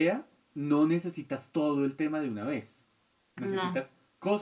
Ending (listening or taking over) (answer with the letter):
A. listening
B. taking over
A